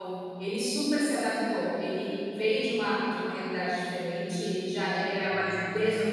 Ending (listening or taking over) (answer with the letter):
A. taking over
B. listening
B